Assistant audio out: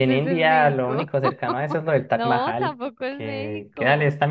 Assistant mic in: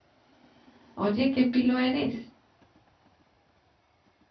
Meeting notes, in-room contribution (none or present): present